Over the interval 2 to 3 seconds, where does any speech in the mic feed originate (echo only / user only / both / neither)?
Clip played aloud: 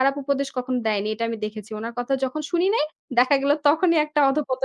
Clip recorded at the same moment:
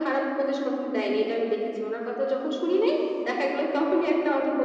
echo only